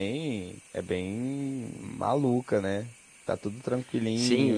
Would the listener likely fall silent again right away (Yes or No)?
No